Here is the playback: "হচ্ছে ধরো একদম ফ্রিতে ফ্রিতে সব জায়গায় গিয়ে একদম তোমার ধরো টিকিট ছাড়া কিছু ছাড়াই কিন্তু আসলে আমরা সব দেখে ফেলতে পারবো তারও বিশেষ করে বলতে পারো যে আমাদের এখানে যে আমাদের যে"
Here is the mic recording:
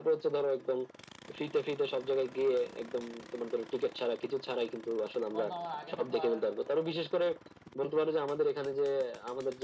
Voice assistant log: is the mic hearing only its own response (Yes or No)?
No